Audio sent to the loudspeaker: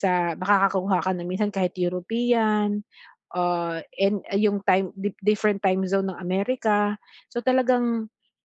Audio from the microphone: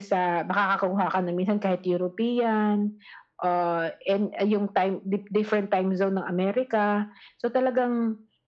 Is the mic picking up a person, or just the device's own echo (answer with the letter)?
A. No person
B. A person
A